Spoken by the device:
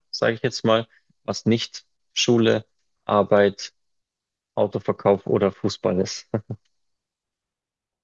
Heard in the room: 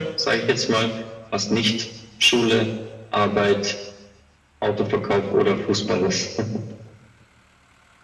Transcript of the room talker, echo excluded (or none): none